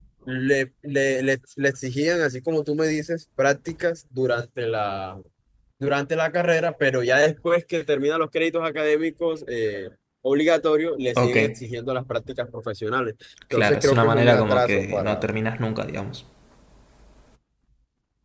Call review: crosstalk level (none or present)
present